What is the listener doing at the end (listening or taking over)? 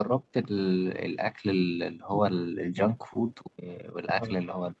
listening